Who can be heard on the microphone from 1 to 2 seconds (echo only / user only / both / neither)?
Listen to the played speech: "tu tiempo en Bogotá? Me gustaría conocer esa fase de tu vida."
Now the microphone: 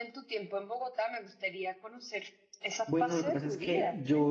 echo only